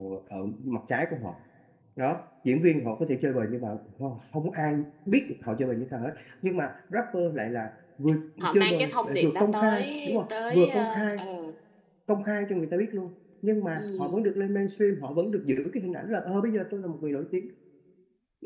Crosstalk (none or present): present